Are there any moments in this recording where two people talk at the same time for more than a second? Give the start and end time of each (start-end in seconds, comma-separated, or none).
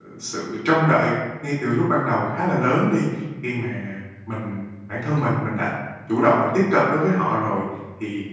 none